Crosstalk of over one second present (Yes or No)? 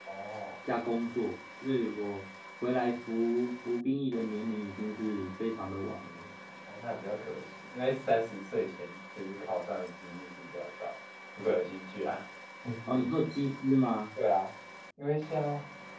No